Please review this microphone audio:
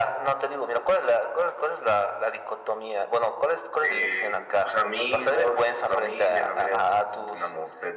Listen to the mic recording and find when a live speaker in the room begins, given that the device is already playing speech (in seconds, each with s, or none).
none